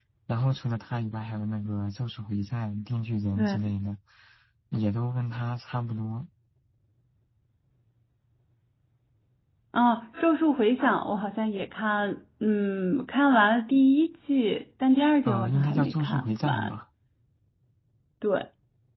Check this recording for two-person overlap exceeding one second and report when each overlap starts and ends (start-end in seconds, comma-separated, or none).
15.2-16.7